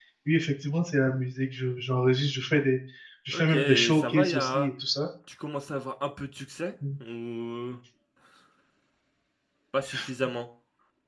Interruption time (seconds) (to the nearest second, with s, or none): 3 s